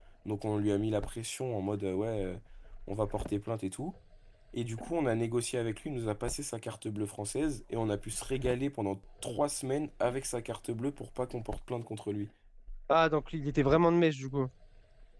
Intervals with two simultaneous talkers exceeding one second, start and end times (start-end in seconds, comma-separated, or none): none